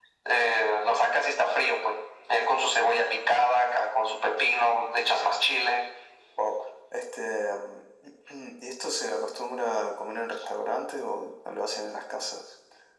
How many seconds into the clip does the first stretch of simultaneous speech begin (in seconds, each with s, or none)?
none